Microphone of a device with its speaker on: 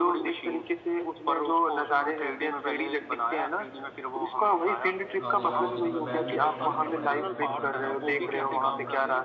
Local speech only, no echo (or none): आने जाने की तुम्हें बैग भी पैक नहीं करना पड़ेगा तुम घर पे बैठे हो और तुम अगर तुम्हें